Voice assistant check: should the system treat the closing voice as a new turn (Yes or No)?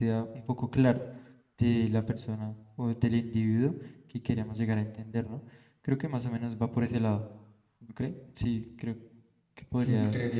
Yes